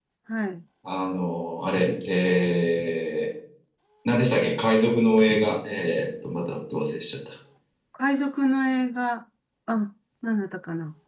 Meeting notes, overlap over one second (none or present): none